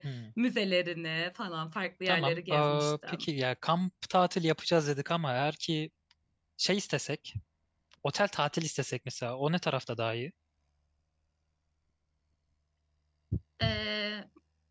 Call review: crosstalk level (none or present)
present